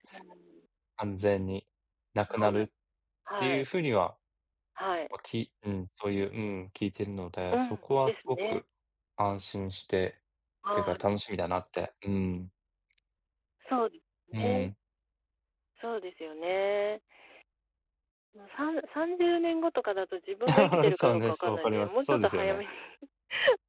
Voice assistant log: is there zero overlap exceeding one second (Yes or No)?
No